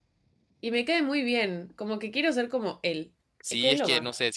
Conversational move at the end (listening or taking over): taking over